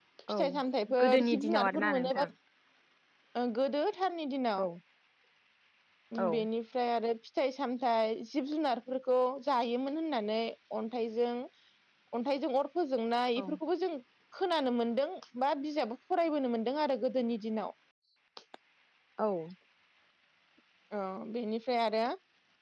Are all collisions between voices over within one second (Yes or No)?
No